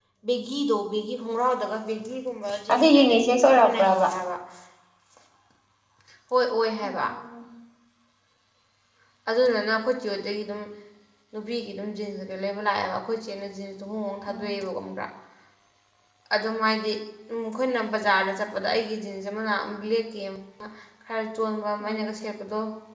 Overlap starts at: 2.7 s

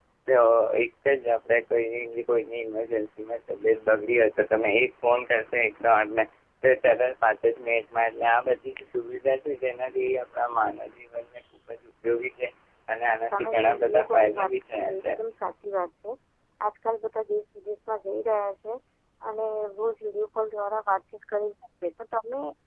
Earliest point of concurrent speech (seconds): 13.4 s

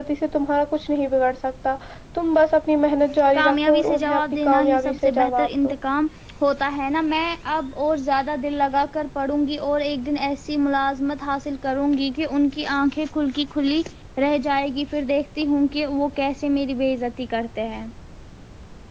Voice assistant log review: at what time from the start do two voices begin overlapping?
3.1 s

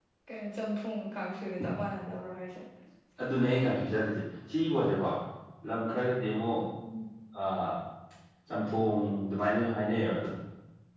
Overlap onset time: none

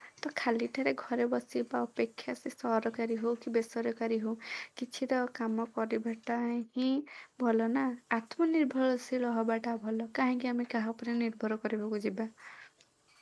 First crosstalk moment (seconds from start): none

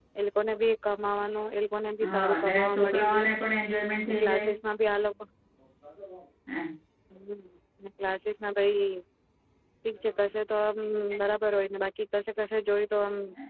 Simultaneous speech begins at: 2.0 s

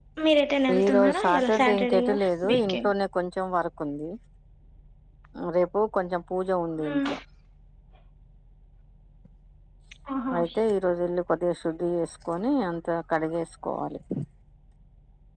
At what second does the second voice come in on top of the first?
0.8 s

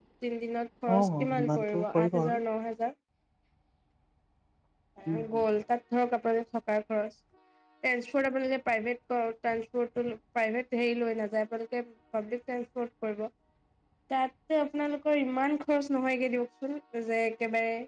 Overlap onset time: 1.0 s

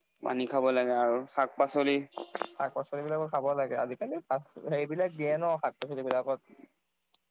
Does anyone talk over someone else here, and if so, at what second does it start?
none

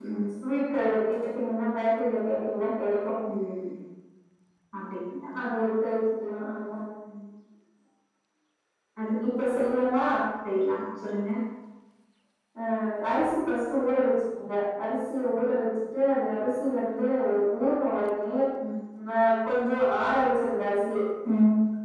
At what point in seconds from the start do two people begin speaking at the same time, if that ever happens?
none

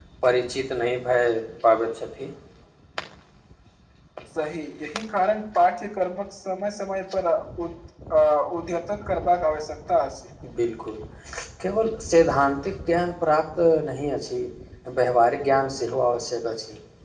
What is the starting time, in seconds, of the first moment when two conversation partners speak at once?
none

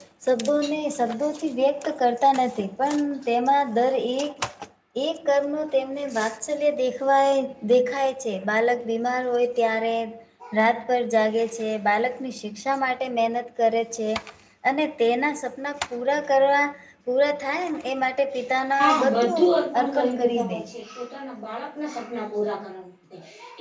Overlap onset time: 18.8 s

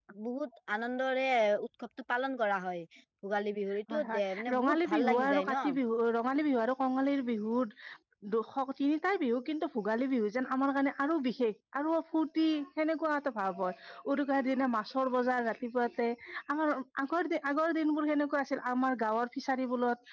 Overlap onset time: 3.9 s

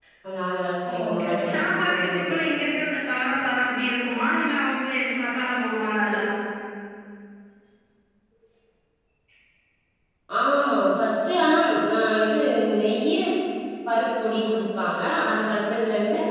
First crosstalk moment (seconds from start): 1.1 s

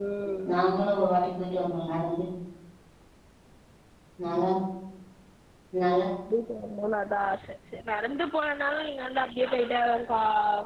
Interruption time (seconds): none

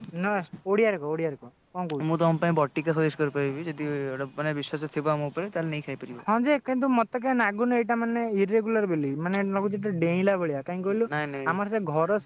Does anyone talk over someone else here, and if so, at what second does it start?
none

